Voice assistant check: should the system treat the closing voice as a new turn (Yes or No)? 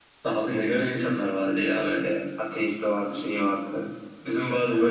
No